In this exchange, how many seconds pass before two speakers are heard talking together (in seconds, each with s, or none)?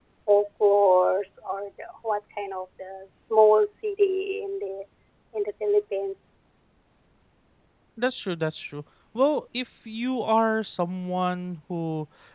none